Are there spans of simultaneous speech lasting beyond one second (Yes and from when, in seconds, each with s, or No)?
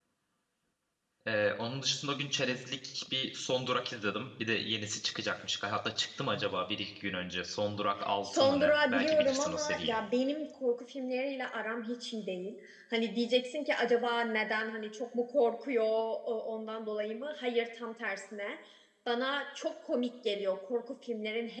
Yes, from 8.2 s